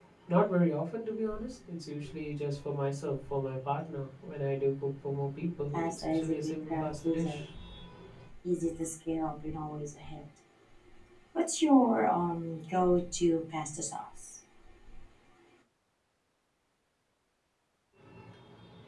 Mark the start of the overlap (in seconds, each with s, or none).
5.7 s